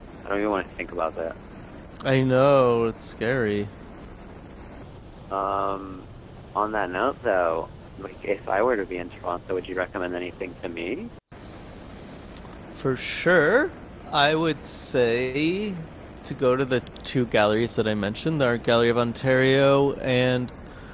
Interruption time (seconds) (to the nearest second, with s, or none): none